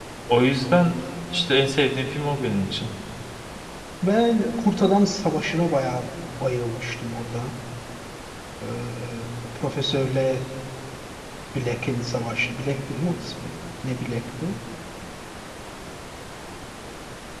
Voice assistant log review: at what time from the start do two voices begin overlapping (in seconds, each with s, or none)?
none